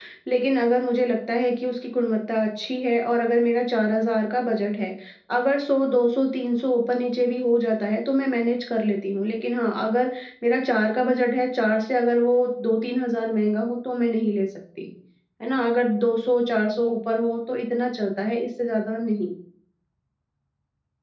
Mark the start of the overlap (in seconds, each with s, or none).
none